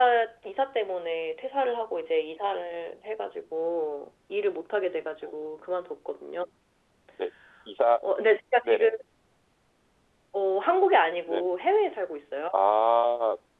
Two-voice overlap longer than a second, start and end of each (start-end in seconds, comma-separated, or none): none